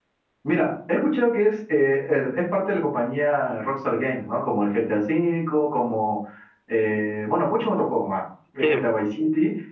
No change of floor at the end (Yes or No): Yes